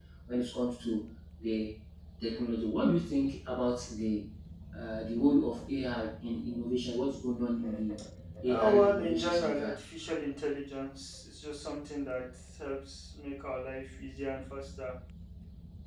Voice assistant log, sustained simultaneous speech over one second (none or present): present